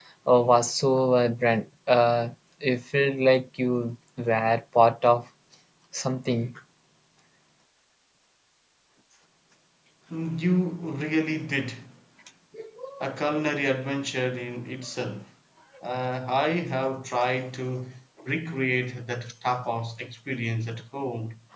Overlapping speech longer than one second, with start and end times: none

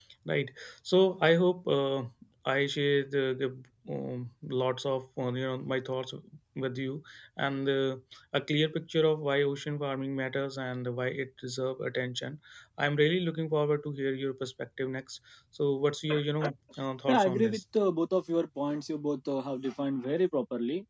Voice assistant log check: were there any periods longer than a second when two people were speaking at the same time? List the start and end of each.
none

